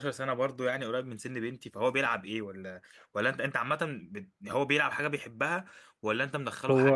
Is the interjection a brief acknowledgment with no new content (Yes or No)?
No